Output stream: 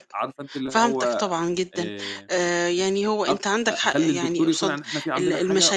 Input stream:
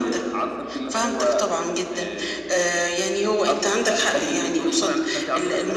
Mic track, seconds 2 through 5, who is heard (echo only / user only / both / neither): echo only